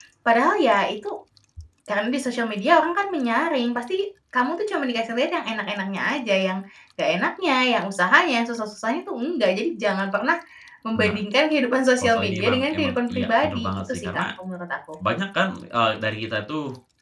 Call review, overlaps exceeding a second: present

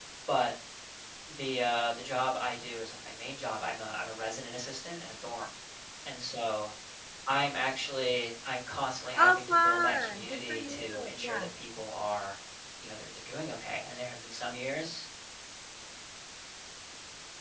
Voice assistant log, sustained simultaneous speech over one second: present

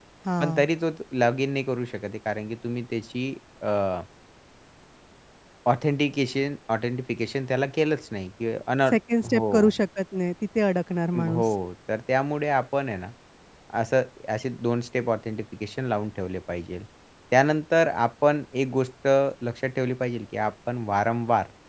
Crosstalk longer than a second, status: none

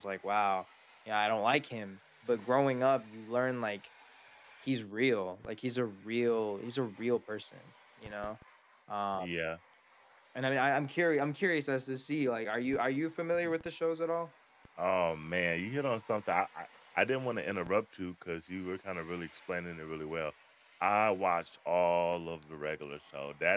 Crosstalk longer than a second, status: none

